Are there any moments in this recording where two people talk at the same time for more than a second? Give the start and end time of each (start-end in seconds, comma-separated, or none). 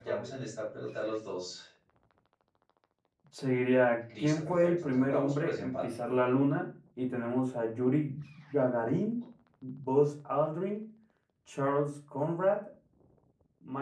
4.2-5.9